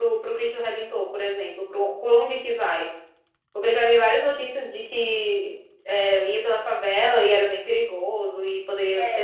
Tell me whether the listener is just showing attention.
No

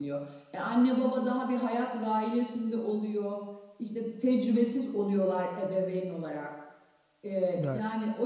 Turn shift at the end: No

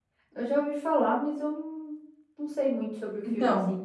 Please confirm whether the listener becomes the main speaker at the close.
Yes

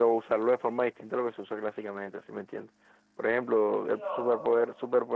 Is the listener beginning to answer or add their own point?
No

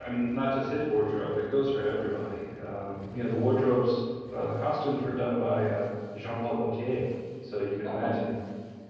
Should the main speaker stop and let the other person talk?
No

